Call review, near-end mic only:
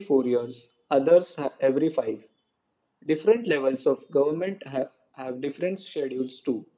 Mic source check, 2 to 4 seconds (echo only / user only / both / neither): echo only